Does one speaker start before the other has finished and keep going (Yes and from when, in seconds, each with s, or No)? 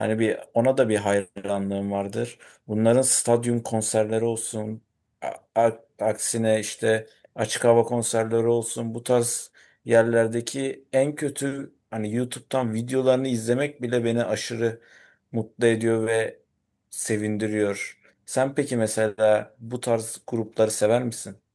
No